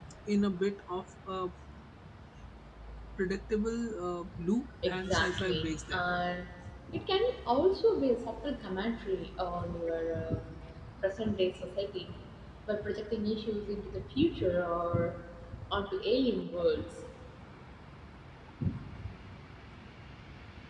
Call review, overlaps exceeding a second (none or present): present